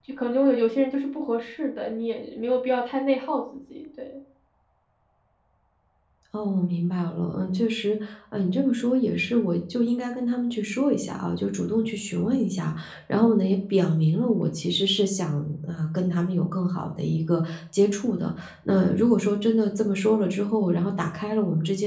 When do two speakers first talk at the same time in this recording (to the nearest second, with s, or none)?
none